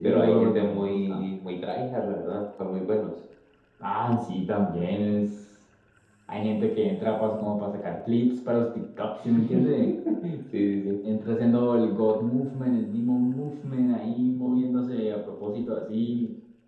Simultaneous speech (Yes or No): Yes